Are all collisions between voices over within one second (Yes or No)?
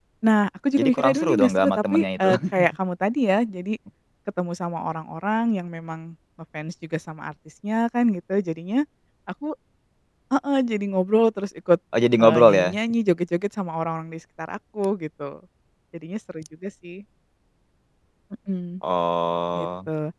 No